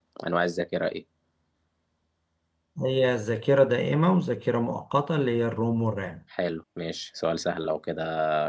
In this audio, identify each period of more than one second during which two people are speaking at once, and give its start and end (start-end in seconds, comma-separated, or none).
none